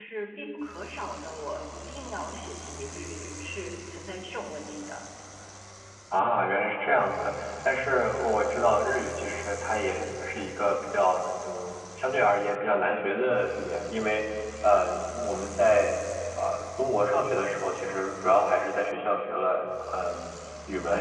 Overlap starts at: none

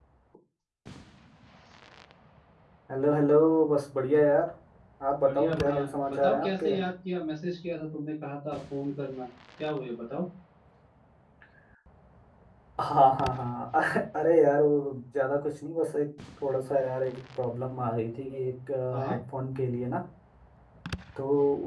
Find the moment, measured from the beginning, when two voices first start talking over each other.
5.2 s

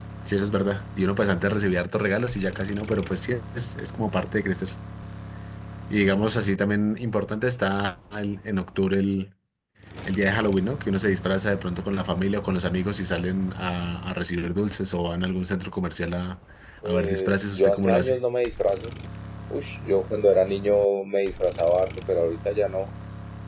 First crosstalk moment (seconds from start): 16.9 s

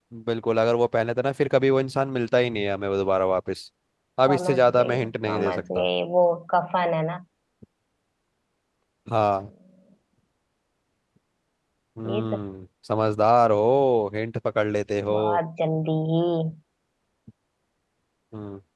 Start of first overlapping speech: 4.3 s

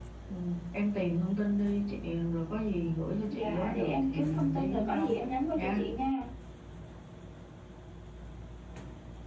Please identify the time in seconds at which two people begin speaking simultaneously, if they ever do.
3.2 s

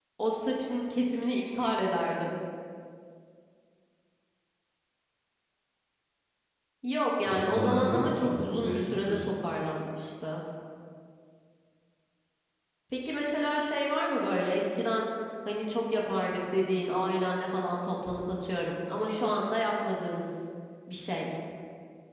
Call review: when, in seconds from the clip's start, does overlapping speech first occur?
7.3 s

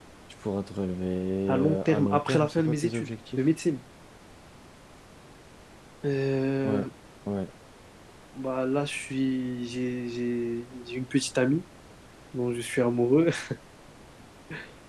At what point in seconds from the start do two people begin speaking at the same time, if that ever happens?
1.5 s

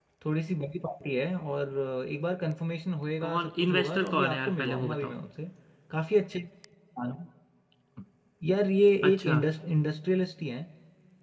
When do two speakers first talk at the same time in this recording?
3.2 s

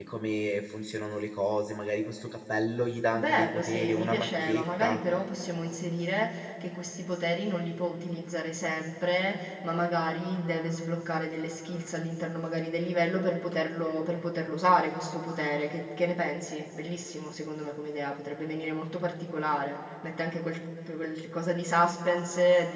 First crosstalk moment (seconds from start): 3.2 s

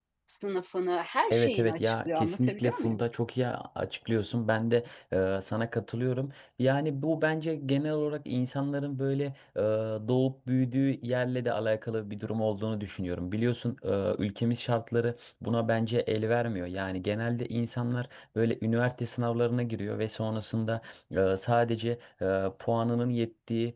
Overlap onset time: 1.3 s

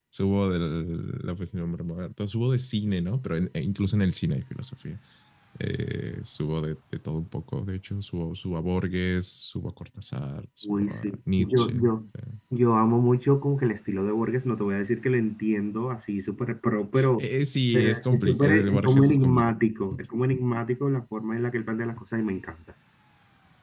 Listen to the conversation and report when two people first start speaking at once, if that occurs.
10.6 s

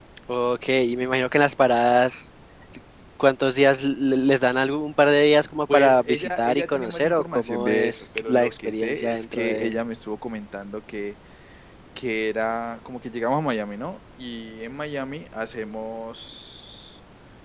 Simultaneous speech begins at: 5.7 s

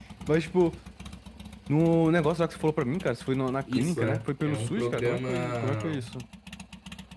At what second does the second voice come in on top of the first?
3.7 s

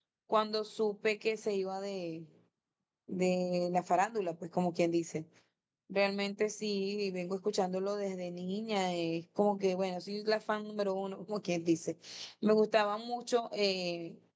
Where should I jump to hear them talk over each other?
none

